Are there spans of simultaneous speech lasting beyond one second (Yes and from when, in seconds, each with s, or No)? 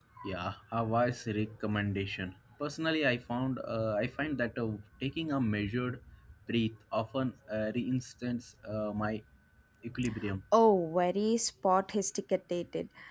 No